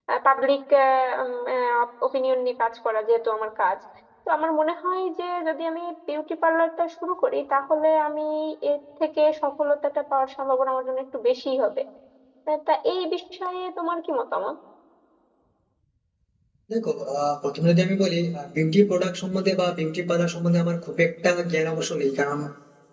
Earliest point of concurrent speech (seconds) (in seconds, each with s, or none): none